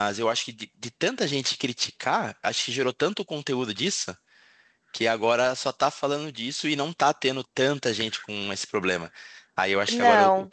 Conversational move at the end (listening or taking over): listening